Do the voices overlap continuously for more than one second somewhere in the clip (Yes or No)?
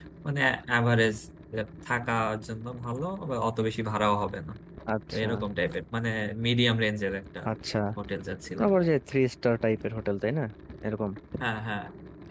No